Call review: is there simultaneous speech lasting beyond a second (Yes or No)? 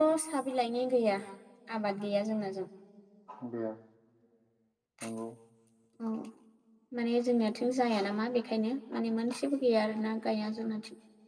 No